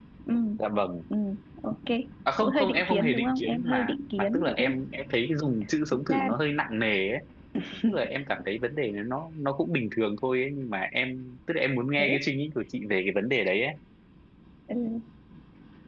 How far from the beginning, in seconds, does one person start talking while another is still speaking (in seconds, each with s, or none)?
2.4 s